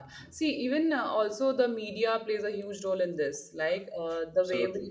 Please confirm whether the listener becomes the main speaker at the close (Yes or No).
No